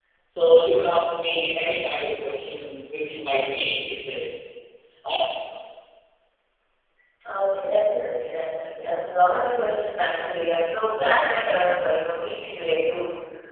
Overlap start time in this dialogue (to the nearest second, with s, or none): none